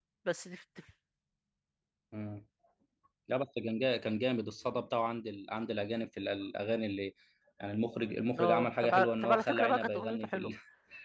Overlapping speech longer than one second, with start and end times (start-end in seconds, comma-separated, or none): 8.4-10.5